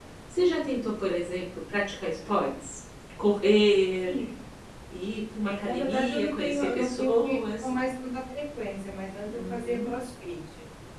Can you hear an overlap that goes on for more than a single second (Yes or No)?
Yes